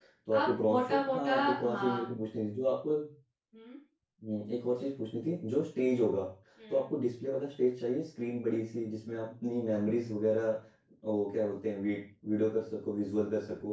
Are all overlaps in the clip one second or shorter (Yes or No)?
No